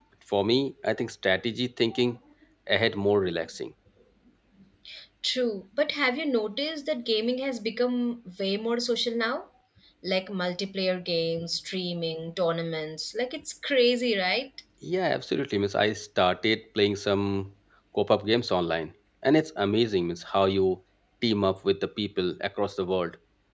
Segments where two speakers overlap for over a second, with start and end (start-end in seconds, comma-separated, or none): none